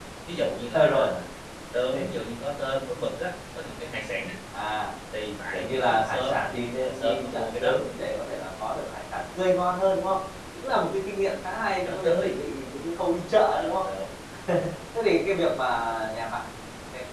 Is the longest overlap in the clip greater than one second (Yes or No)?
Yes